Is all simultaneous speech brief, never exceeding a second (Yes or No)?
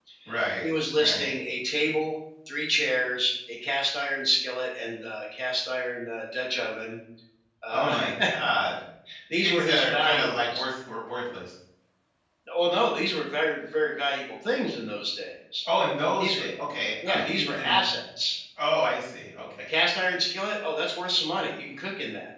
No